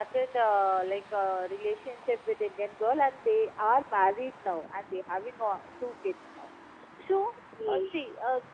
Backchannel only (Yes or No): Yes